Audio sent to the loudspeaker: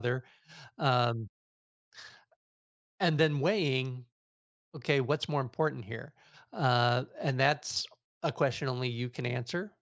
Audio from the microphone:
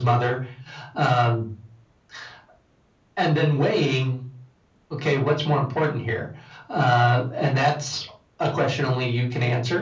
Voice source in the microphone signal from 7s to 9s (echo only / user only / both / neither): echo only